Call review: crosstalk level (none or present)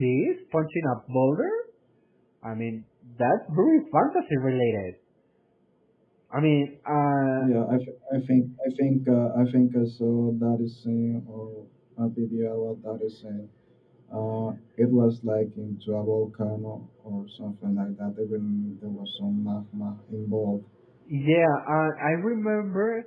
none